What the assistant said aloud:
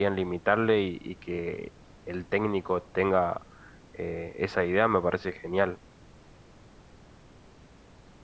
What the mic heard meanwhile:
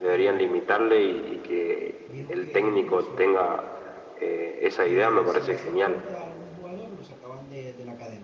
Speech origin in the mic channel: both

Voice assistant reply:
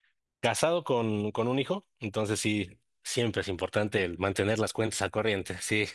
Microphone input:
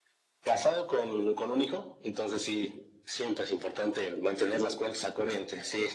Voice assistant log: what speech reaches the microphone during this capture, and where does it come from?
echo only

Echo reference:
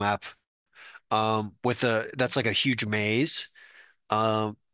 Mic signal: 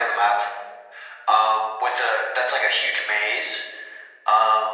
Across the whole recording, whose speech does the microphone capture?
echo only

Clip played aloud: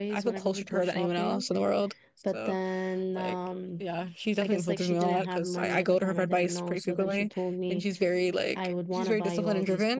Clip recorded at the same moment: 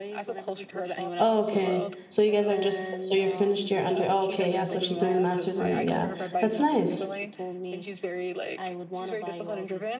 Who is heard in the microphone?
both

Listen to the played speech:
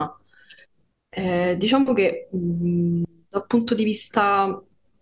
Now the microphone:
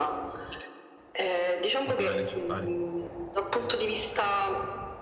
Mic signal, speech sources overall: both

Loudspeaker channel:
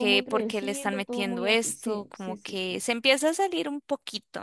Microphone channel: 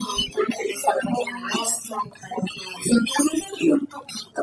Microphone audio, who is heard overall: echo only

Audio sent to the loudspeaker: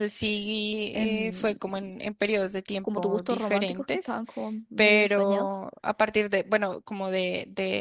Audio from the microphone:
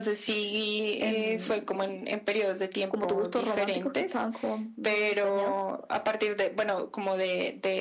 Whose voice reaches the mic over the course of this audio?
echo only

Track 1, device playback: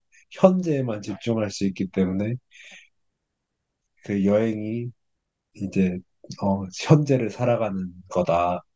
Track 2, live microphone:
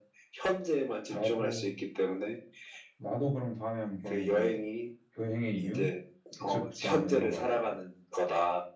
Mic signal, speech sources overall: both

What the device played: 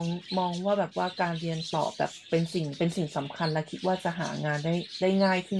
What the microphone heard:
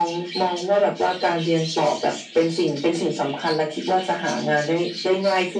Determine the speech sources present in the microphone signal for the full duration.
echo only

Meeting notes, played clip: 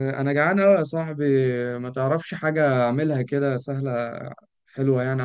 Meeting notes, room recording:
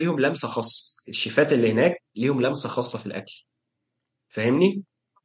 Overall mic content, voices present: user only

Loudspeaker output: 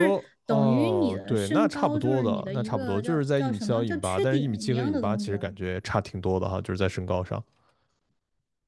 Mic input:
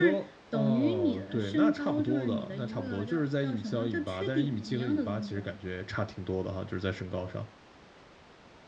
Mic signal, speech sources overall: echo only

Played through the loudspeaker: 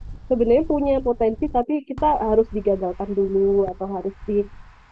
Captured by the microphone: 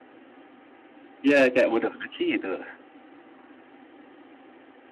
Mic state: user only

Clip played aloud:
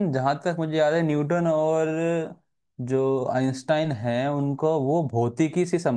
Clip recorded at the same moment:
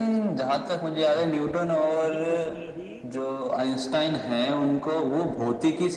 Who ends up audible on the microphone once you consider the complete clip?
both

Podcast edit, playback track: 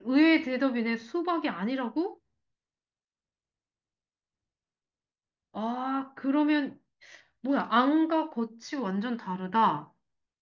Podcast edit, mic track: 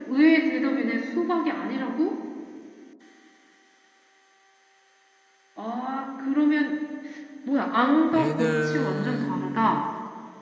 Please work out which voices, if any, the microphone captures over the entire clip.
both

